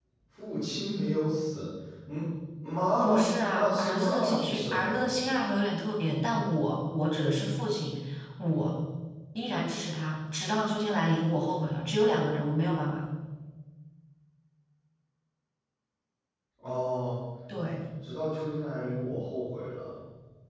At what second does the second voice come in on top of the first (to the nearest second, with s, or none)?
3 s